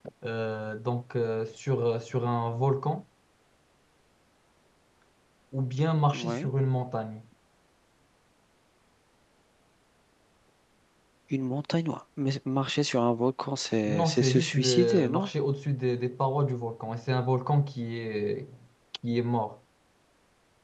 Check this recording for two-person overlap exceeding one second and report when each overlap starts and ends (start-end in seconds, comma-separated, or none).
13.8-15.3